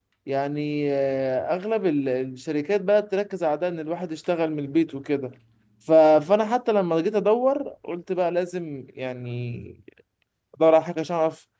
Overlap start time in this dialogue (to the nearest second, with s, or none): none